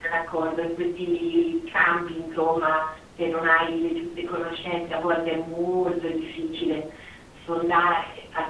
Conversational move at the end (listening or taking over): listening